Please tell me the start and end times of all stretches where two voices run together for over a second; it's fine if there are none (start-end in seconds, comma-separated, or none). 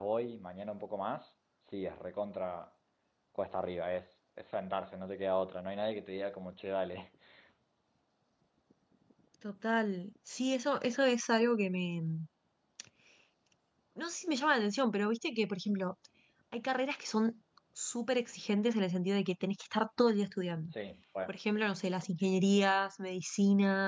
none